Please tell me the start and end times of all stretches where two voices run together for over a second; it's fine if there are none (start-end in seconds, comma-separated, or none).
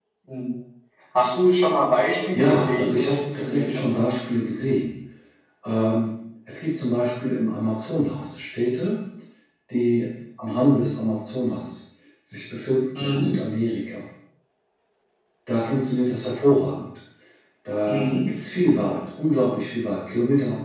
2.3-3.9